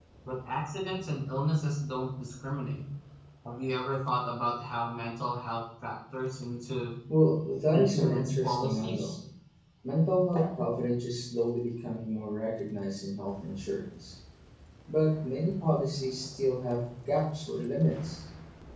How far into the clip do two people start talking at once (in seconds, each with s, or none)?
7.7 s